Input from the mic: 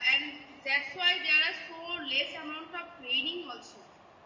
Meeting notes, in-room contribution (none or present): none